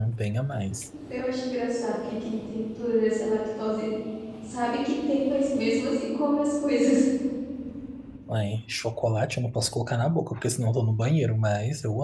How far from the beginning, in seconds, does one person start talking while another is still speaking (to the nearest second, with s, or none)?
none